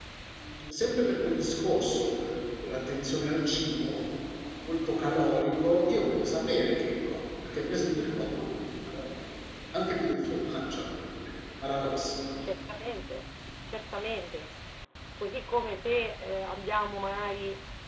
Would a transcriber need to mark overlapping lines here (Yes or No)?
No